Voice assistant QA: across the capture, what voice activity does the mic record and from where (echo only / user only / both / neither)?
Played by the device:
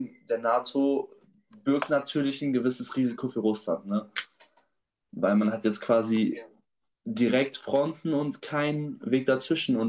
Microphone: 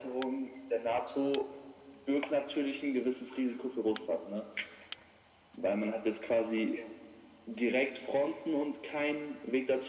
echo only